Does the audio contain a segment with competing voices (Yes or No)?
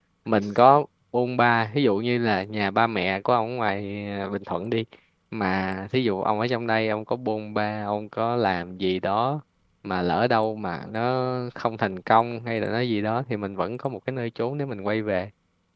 No